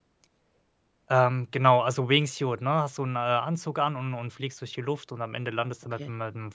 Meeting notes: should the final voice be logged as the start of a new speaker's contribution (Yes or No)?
No